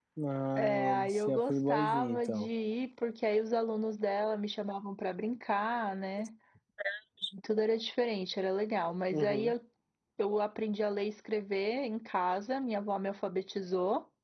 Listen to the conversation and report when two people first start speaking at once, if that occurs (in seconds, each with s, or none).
0.6 s